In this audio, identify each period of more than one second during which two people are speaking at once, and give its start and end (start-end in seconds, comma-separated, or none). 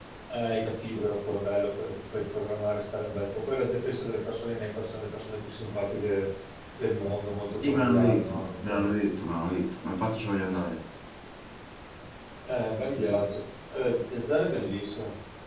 7.6-8.9